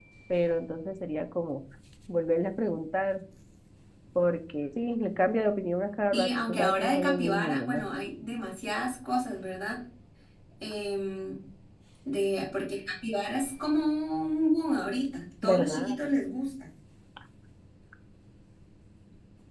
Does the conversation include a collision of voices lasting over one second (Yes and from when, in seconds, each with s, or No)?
Yes, from 6.1 s